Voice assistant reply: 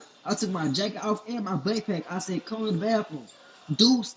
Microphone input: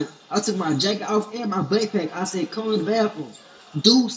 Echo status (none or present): present